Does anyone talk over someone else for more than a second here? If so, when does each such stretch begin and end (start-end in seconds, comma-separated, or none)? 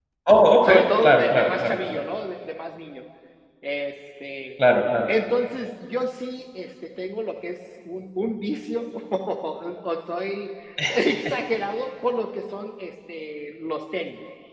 0.6-2.0